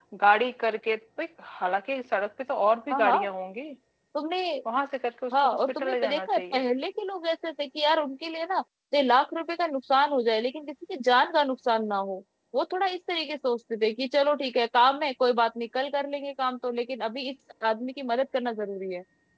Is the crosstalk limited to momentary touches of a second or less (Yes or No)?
No